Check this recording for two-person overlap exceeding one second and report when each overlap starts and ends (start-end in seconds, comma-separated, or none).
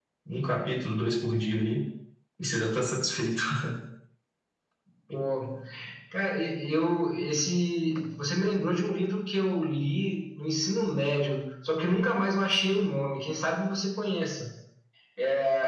none